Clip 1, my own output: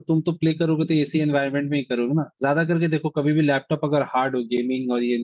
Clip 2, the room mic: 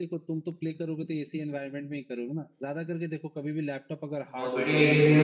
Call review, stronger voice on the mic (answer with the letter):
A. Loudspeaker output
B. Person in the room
B